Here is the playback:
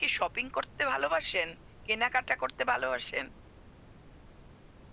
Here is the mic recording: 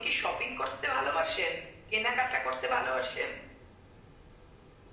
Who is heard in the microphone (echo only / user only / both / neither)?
echo only